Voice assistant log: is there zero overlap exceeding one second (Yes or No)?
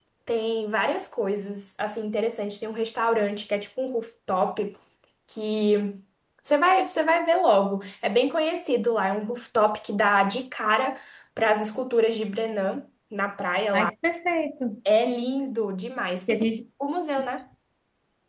Yes